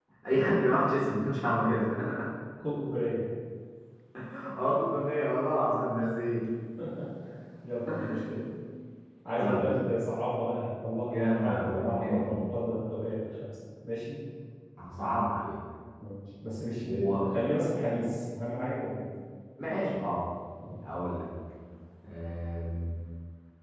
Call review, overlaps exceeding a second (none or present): present